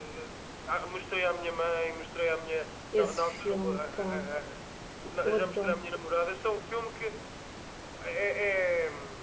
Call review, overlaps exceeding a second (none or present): present